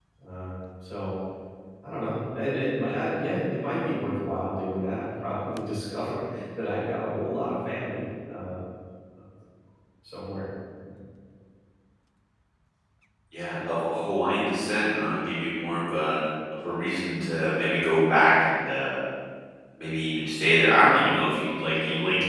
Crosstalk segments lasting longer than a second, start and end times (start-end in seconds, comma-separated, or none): none